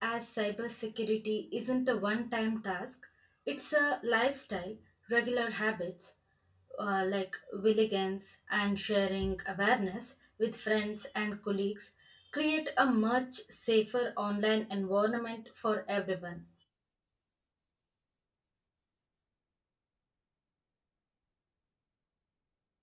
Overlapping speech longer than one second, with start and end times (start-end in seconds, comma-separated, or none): none